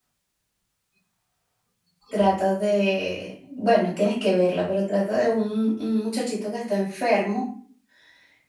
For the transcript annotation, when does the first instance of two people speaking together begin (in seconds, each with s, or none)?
none